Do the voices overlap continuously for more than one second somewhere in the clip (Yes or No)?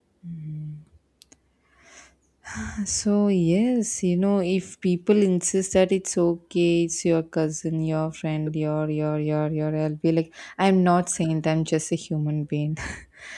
No